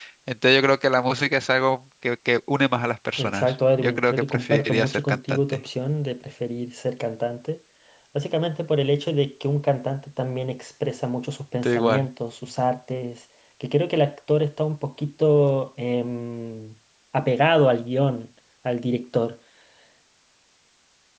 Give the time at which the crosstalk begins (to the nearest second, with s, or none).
3 s